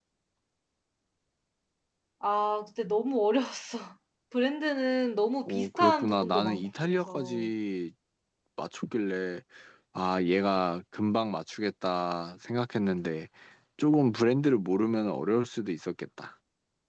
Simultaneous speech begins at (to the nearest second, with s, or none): 5 s